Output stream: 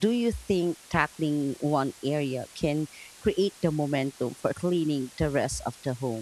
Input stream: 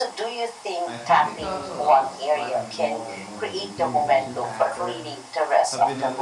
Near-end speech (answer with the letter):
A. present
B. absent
A